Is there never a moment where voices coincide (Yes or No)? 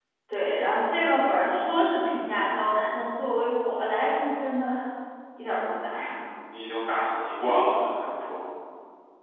Yes